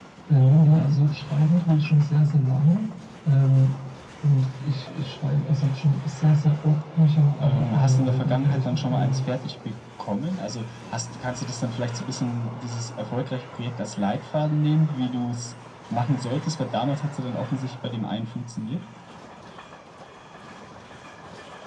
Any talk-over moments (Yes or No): Yes